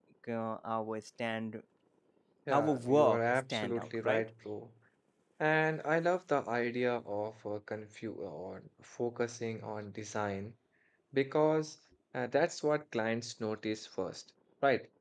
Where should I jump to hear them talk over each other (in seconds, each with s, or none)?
2.5 s